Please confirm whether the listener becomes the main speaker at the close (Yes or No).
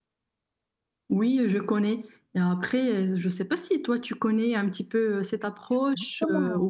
Yes